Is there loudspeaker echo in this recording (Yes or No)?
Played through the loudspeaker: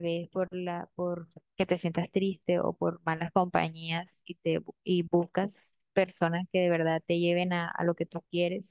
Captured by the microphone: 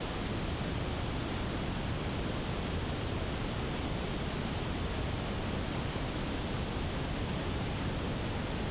No